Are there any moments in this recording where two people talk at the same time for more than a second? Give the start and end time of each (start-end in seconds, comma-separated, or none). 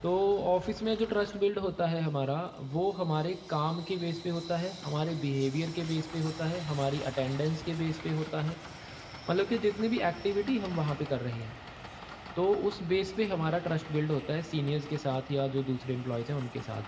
none